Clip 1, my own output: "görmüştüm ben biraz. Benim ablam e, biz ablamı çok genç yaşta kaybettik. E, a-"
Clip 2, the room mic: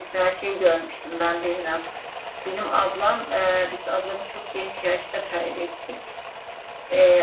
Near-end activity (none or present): none